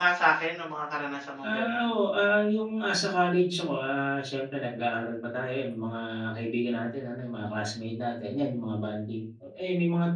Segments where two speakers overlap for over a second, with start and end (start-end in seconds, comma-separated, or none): none